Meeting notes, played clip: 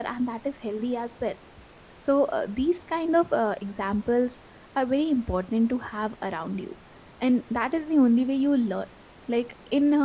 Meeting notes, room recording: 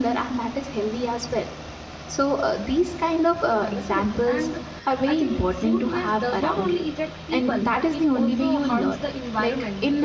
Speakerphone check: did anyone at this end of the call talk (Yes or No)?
Yes